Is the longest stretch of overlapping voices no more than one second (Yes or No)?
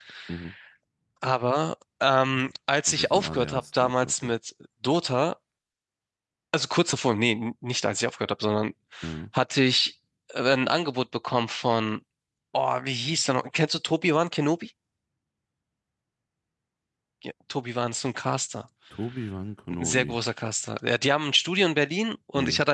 No